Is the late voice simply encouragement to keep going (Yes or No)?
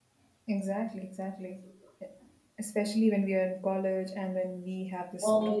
Yes